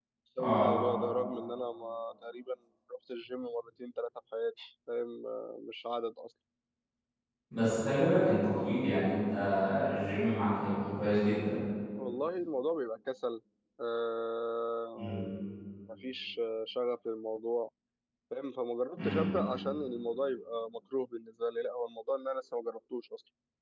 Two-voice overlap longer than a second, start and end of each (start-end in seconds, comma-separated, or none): none